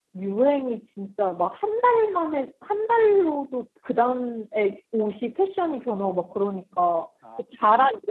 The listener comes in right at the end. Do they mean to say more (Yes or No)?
No